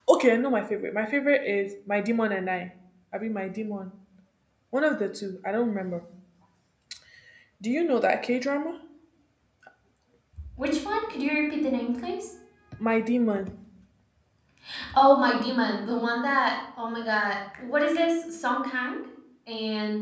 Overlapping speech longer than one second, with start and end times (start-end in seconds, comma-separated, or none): none